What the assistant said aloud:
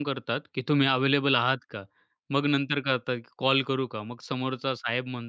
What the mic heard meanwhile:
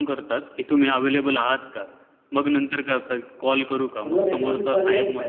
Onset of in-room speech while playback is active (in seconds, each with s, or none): 4.0 s